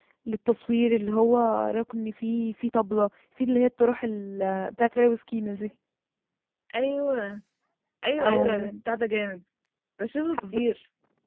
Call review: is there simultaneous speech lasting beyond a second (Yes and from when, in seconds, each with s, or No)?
No